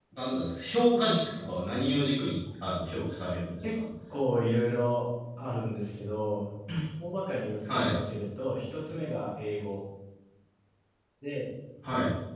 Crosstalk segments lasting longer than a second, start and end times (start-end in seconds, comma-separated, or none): none